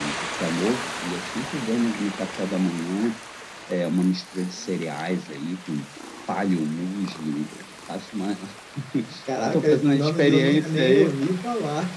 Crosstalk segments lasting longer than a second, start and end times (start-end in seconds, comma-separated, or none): 9.4-11.1